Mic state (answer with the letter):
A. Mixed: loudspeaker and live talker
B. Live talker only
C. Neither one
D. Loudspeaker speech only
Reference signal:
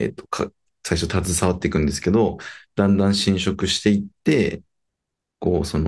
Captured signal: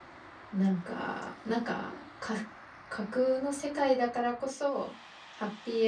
B